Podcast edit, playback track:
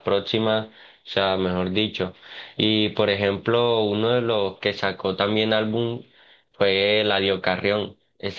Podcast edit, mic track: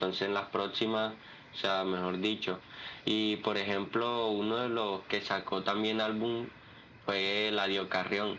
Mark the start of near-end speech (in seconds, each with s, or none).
none